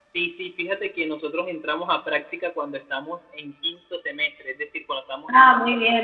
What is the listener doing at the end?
taking over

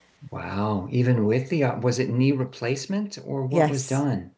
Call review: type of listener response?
taking over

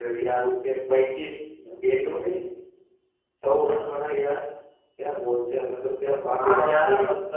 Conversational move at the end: taking over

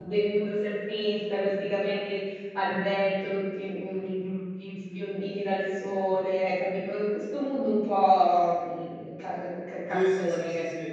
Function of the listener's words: taking over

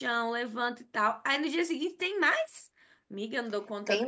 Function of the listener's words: taking over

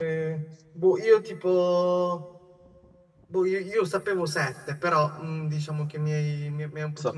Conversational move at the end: taking over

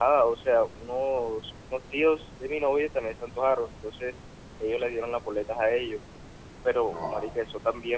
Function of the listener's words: listening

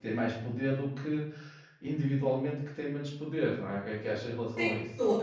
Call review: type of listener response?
taking over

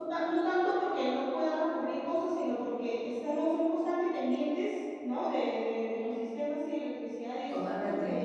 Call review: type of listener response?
listening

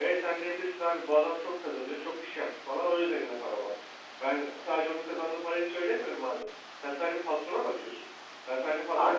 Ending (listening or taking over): listening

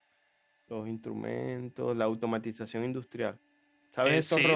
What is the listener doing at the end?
listening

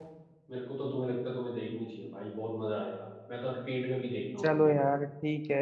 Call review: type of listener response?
taking over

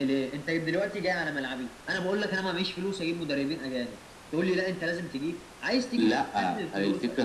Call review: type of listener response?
taking over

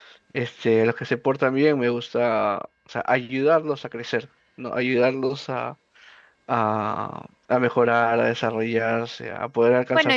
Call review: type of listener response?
taking over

